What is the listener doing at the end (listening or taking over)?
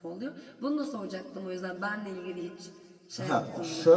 taking over